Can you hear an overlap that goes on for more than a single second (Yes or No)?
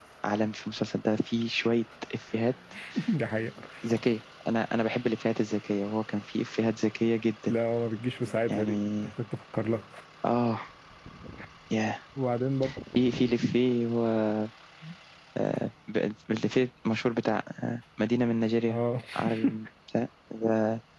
No